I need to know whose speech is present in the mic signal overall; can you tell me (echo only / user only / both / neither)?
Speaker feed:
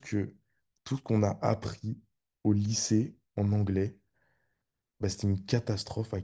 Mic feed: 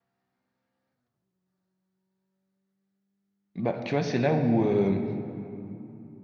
user only